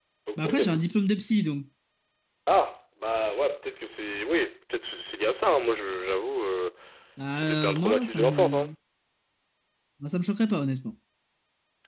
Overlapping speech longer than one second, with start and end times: 7.3-8.7

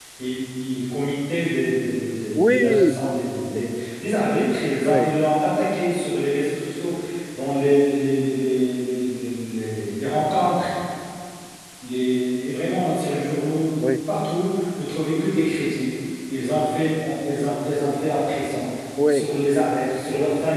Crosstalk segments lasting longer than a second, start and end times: 2.4-3.9

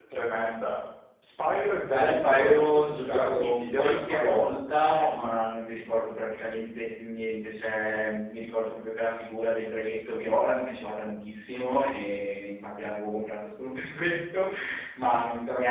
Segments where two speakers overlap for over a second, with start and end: 1.9-4.4

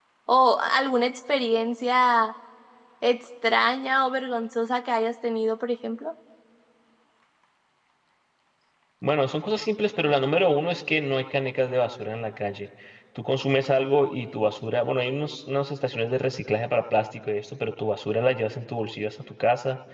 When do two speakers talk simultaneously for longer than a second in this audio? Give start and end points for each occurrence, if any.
none

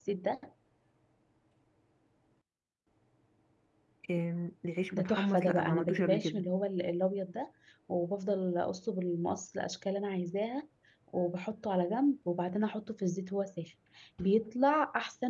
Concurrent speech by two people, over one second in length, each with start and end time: 4.9-6.4

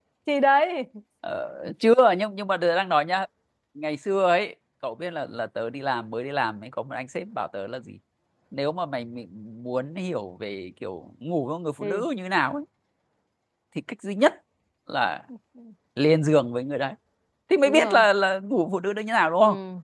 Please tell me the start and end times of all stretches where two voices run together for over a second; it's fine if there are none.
none

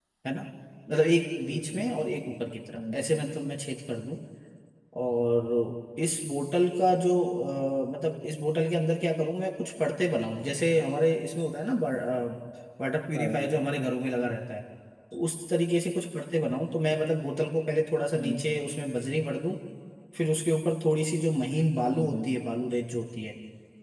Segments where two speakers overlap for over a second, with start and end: none

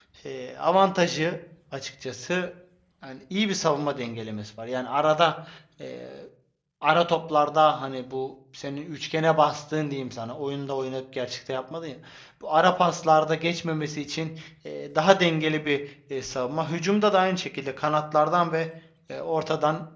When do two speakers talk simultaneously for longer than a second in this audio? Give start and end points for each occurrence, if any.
none

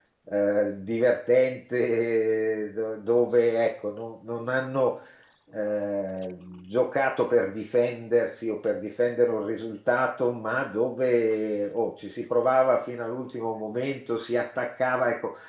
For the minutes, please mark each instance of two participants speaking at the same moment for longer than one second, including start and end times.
none

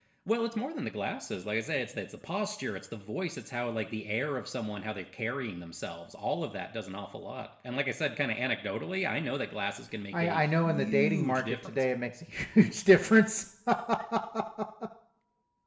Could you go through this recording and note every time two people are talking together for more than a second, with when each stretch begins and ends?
10.1-11.8

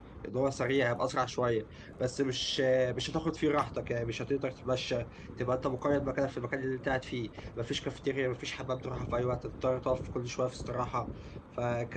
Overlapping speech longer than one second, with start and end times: none

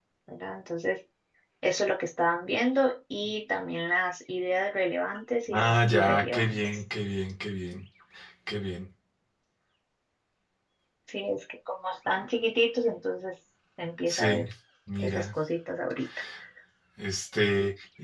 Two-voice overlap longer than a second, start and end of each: 5.5-6.8

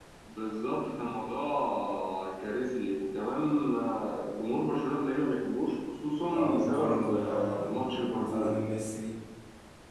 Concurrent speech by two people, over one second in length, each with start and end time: 6.3-8.6

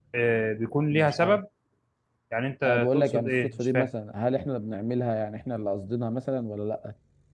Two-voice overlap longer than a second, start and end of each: 2.6-3.9

